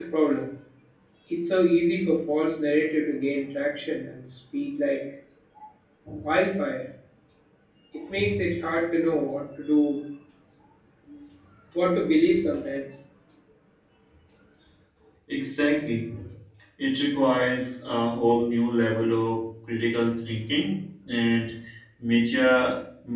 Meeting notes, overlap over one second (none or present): none